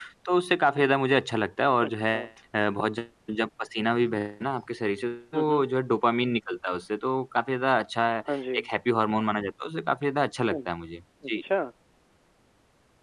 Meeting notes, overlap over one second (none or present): none